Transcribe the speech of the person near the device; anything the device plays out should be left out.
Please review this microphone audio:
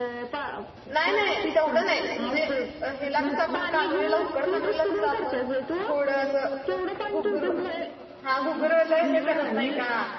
नाय नाय तेवढं नाय असं म्हणजे हेला कसं सं आपणं कानुलीला उकडं कानुलीला कसं आपण थोडं असं घुगुर हां घुगर वल्लं हे करत नाही का?

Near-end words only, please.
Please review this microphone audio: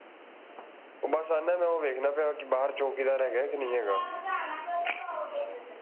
none

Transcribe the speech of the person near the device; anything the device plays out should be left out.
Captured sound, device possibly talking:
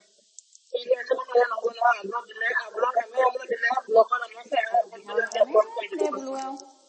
অসুবিধা হয় সেইকাৰণে দে বোলোঁ আৰু

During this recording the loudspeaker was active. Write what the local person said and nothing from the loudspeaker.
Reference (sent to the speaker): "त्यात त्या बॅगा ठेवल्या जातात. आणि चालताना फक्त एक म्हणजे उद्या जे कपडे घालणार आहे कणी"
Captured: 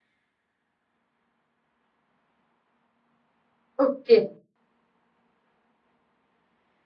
ओके

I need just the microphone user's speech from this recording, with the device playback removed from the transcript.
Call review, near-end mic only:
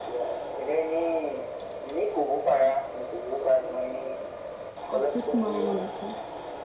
আছুত সোমাব মন আছে।

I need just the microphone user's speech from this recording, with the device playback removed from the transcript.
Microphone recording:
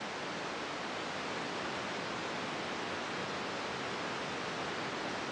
none

